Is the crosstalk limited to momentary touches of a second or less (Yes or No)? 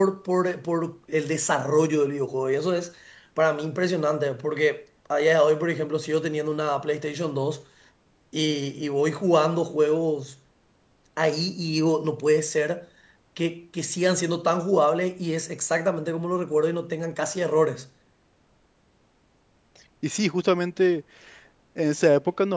Yes